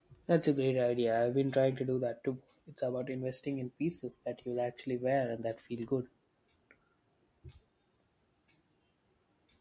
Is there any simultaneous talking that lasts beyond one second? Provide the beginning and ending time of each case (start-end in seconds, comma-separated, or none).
none